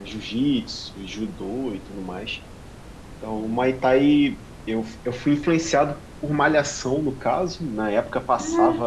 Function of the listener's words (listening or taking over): listening